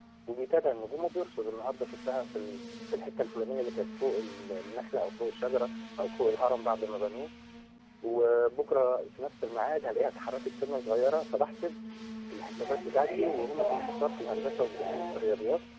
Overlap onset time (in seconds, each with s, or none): 12.6 s